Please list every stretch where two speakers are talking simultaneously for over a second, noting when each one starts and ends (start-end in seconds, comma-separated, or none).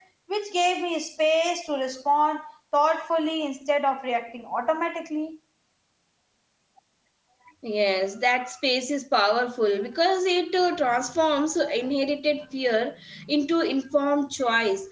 none